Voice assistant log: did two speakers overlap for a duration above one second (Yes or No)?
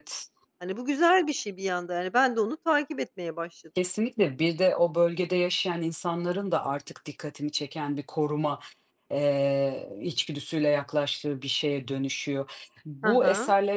No